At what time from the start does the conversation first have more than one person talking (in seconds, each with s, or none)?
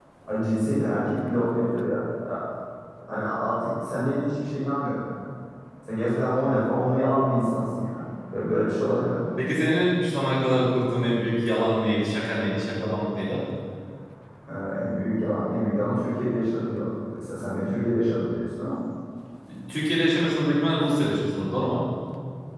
none